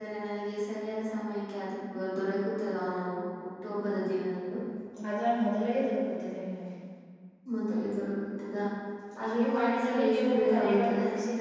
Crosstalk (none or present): present